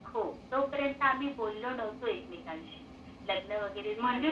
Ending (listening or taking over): taking over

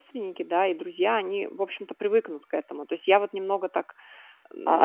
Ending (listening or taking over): taking over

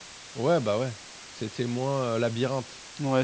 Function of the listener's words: taking over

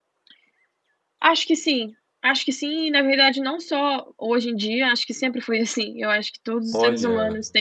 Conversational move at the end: listening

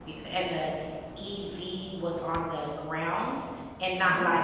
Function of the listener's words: listening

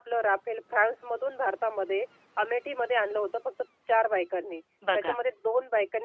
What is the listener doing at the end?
listening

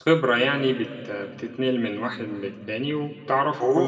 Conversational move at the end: taking over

